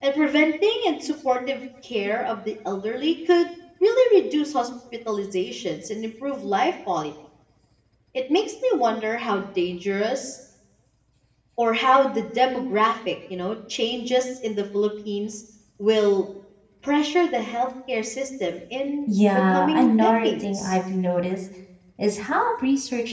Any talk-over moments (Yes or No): Yes